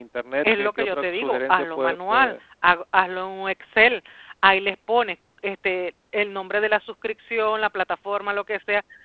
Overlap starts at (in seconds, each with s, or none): 0.6 s